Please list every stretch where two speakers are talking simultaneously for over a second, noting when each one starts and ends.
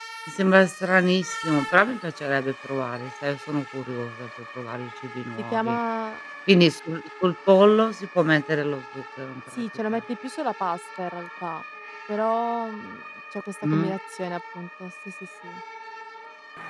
none

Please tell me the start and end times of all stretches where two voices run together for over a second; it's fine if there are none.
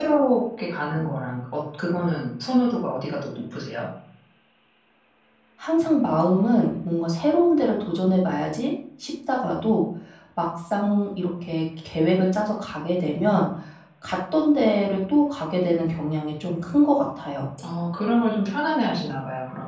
none

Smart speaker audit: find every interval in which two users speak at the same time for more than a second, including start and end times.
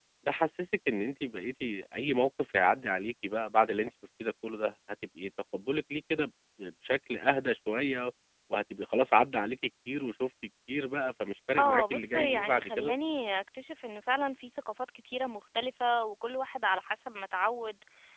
11.6-12.9

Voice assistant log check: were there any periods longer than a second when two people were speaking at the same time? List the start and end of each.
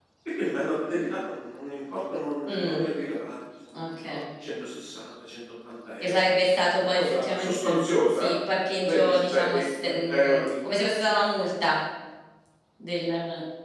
6.8-8.3, 8.8-10.5

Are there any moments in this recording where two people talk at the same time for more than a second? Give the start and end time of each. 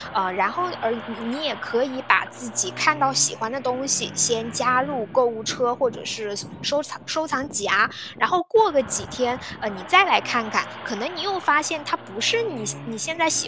none

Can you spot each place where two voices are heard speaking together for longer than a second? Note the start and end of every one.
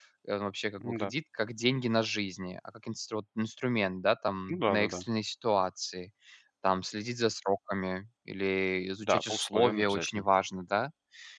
9.0-10.2

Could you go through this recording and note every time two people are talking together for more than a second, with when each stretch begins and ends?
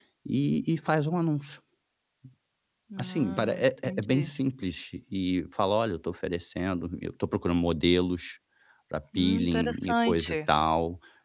3.0-4.3, 9.2-10.4

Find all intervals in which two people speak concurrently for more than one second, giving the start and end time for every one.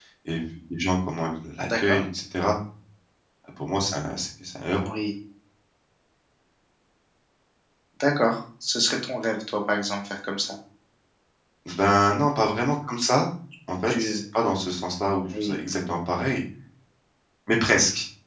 none

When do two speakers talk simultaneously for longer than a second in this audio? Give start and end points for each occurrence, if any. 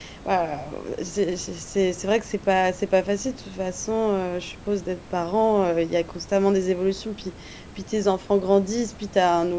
none

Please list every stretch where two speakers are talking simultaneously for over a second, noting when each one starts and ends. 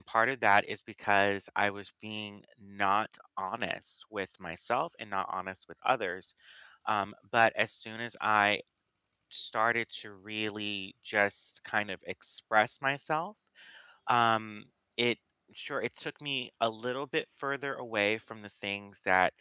none

